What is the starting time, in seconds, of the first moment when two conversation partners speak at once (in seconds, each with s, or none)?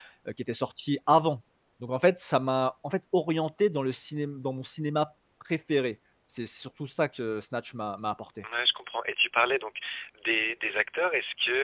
none